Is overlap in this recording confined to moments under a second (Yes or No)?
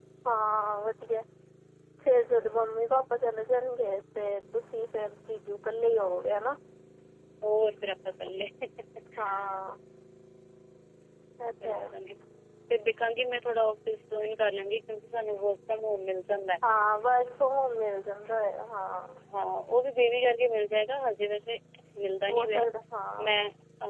Yes